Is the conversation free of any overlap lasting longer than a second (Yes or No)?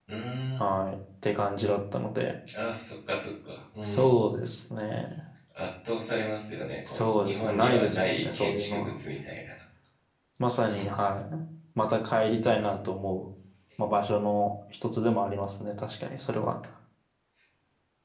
No